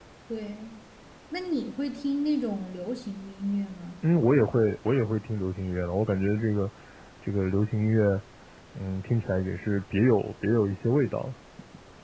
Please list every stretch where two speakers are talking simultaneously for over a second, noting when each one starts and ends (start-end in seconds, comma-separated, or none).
none